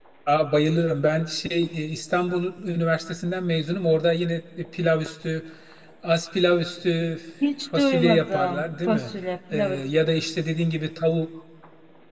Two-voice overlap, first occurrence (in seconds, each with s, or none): 7.8 s